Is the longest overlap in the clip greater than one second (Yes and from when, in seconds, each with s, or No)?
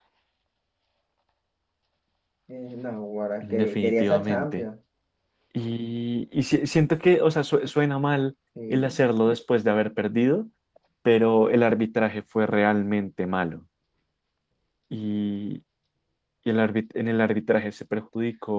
Yes, from 3.4 s